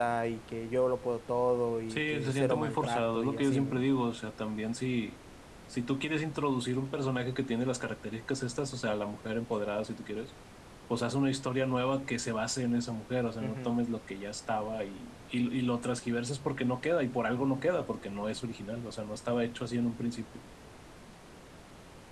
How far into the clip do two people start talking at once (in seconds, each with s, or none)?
1.9 s